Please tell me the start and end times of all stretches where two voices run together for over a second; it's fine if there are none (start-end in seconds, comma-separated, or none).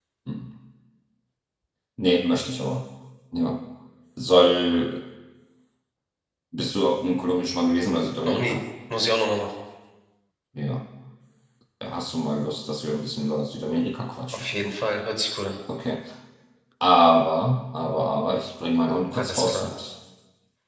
none